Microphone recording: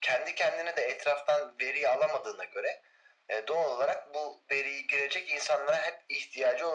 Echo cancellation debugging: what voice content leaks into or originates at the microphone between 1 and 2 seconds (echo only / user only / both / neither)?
echo only